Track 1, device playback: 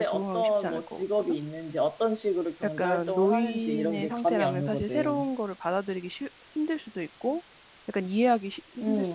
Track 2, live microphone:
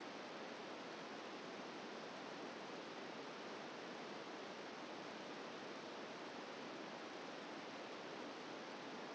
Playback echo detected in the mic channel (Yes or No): No